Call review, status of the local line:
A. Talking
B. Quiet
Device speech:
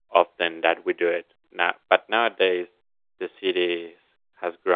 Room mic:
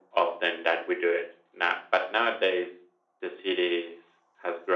B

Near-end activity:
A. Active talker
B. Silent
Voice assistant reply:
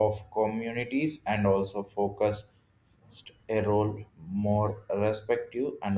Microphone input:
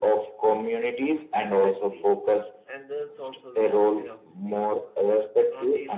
A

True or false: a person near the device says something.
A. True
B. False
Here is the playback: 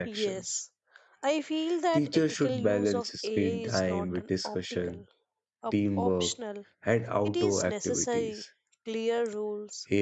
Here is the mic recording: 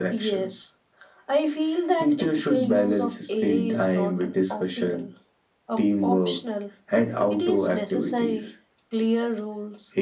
B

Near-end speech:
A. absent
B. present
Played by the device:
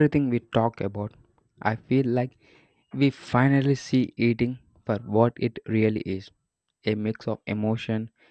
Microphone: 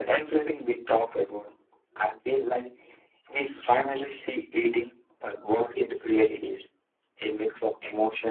A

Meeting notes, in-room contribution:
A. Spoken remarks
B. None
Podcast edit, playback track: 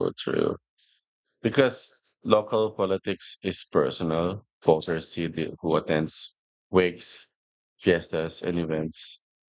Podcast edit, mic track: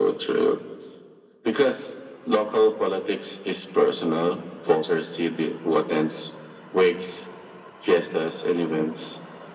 B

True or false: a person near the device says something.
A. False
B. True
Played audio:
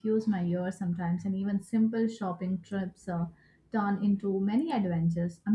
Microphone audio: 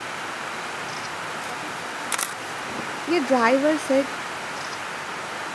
B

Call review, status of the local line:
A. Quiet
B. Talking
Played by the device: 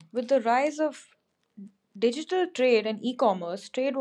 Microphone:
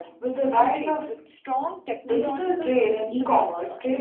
B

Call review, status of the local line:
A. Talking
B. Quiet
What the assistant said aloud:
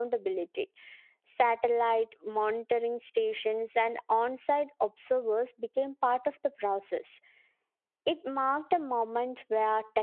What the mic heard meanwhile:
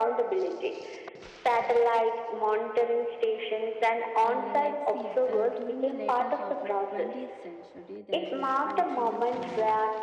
A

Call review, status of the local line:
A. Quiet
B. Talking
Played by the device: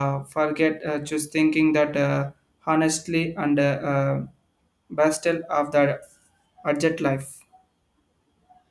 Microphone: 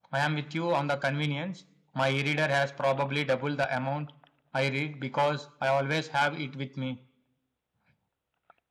B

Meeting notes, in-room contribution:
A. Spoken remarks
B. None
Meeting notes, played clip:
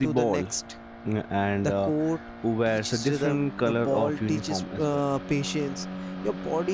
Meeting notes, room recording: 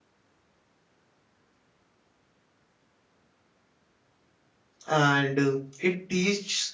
A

